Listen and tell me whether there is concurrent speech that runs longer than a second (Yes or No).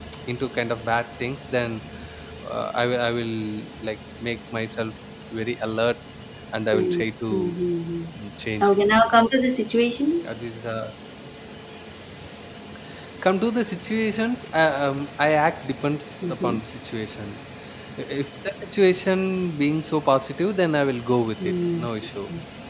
No